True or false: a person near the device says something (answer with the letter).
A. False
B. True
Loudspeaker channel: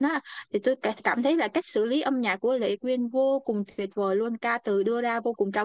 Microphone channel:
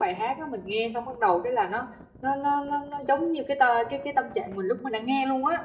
B